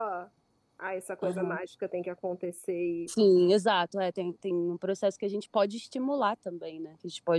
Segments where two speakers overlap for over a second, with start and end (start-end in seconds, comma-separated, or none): none